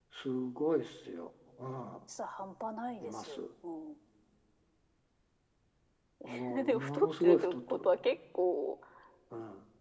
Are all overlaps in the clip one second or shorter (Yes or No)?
No